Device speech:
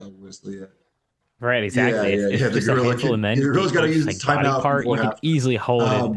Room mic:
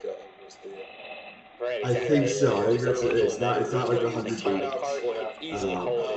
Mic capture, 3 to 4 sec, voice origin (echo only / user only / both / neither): both